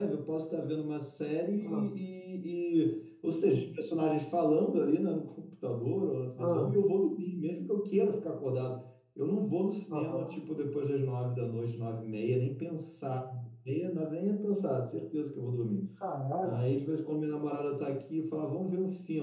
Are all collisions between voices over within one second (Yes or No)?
Yes